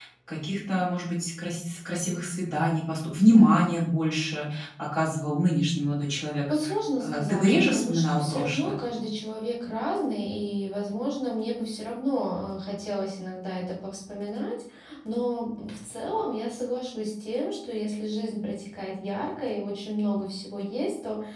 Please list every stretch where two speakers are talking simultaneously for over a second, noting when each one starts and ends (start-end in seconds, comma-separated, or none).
7.0-8.8